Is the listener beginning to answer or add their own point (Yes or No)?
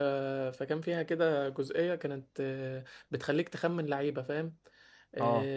No